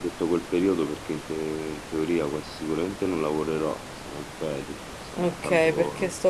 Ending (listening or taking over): taking over